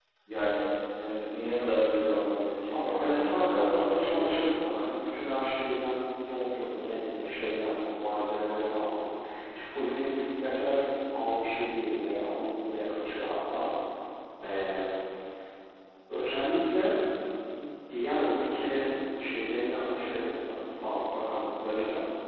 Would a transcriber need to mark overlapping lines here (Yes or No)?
Yes